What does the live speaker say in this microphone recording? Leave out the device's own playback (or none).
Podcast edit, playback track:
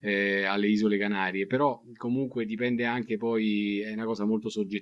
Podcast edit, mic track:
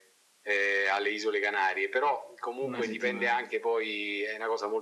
Una settimana.